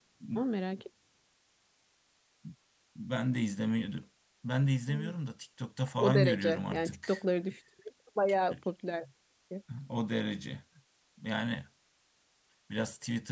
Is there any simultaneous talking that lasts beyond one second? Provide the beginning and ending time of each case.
6.0-7.2

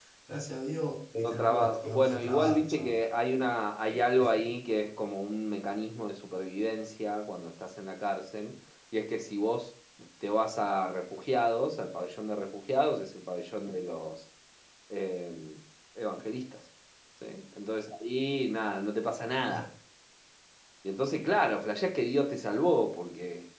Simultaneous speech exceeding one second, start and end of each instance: 1.1-3.0

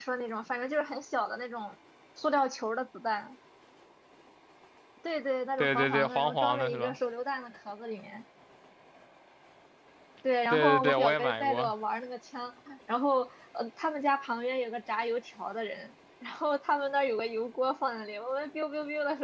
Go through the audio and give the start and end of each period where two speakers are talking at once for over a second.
5.6-7.0, 10.5-11.7

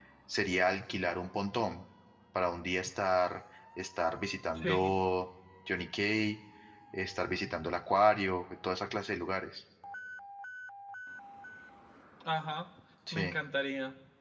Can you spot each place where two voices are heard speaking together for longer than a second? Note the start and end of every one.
none

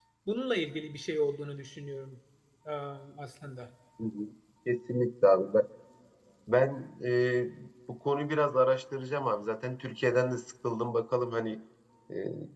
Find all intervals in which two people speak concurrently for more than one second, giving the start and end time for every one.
none

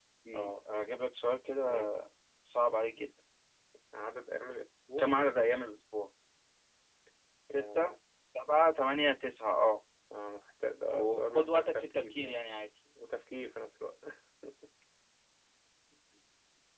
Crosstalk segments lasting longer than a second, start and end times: 10.9-12.4

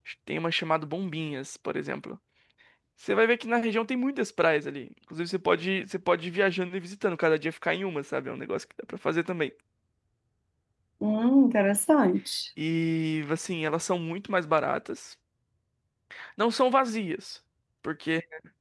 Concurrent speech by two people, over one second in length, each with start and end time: none

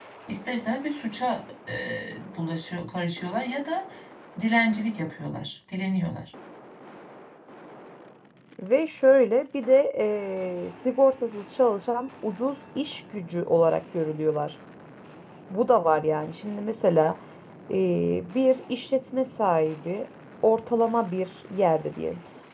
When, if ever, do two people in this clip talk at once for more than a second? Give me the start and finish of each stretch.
none

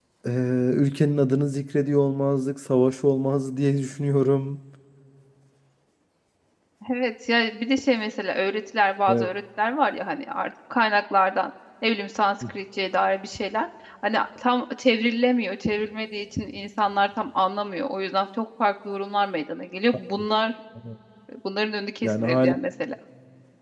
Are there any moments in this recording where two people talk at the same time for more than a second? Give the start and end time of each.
none

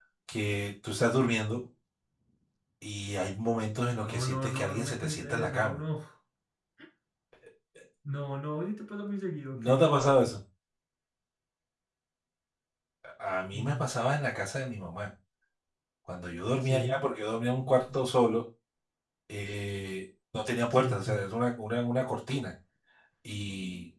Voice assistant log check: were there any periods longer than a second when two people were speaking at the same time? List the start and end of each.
4.0-5.8

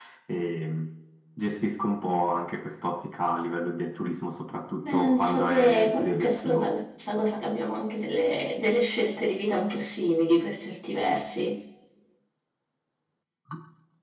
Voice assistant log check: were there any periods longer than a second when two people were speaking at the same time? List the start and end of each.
4.8-6.7

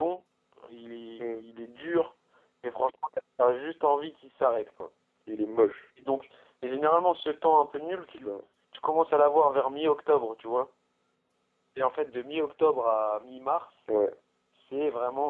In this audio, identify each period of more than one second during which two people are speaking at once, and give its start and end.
none

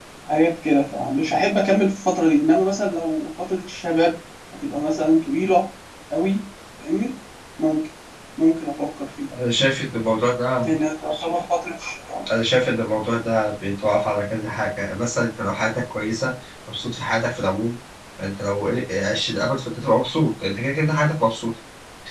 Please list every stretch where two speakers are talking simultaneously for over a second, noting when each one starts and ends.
none

